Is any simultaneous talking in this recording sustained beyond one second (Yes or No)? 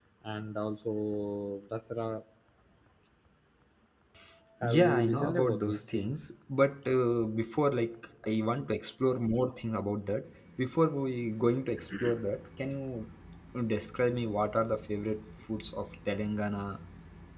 Yes